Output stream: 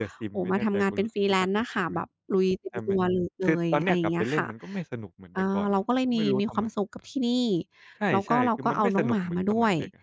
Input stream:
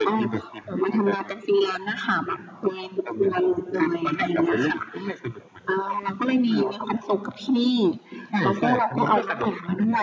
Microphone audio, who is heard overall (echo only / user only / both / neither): echo only